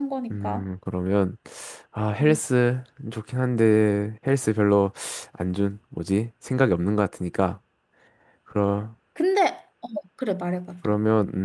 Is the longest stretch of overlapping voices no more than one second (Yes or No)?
Yes